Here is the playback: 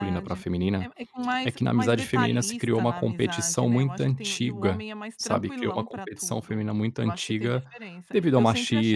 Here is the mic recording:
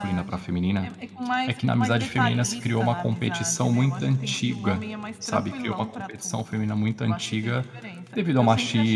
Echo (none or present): present